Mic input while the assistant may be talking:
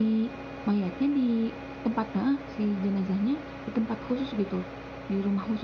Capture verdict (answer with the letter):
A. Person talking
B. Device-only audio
A